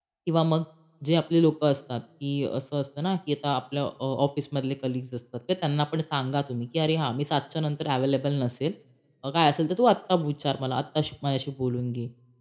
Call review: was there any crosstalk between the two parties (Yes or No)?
No